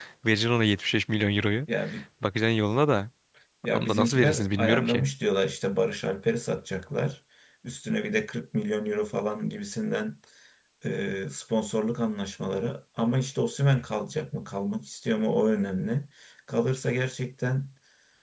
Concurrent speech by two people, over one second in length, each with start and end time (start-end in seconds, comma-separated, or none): 3.7-5.0